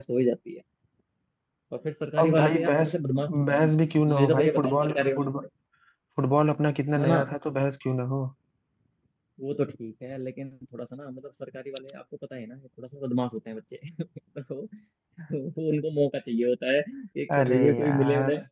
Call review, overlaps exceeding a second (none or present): present